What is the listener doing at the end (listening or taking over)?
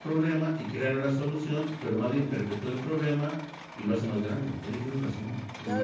taking over